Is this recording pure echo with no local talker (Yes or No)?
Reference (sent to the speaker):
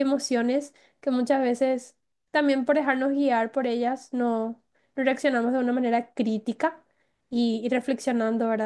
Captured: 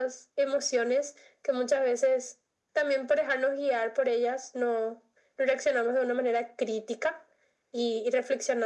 Yes